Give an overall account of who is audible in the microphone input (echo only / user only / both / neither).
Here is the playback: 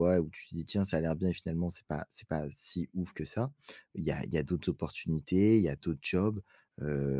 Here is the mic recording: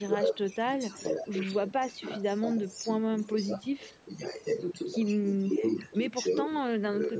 both